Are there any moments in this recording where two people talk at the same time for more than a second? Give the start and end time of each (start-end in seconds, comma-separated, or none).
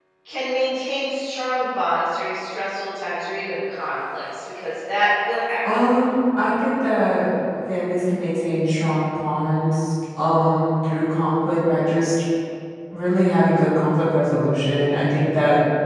none